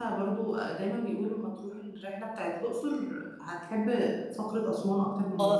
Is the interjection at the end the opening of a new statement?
Yes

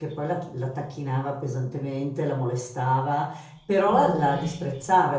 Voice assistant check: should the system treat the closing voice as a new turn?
No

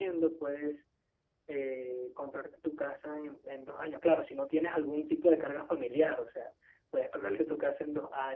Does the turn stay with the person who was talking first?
Yes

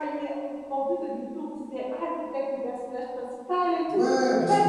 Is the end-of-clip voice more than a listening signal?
Yes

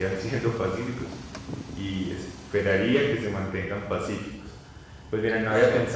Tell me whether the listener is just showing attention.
Yes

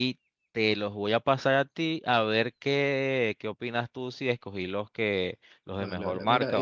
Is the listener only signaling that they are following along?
No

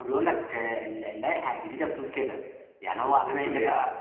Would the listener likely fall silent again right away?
Yes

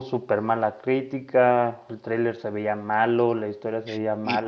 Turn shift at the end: Yes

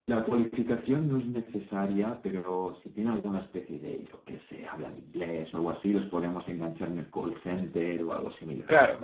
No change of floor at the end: No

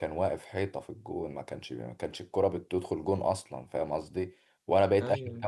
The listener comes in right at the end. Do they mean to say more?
No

